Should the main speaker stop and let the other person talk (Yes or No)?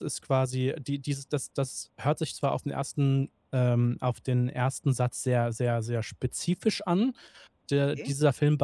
No